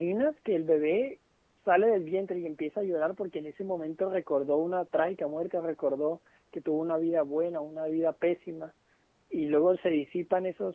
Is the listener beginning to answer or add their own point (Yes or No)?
No